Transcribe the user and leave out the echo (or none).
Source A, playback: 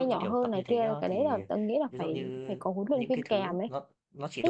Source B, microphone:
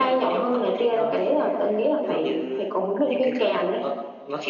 none